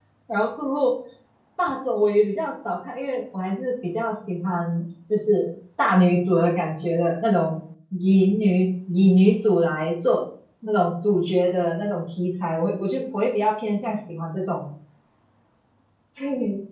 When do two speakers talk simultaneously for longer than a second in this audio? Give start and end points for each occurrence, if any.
none

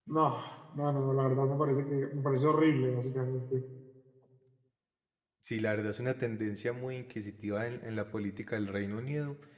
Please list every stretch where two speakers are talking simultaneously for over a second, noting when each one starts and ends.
none

